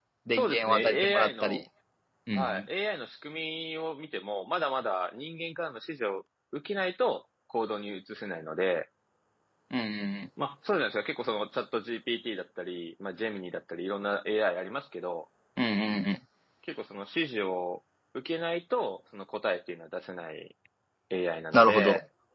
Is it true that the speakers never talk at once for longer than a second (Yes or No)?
No